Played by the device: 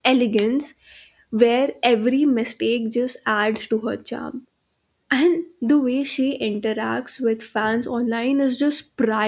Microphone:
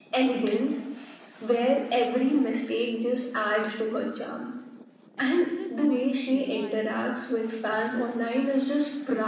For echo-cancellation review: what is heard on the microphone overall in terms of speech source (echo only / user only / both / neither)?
both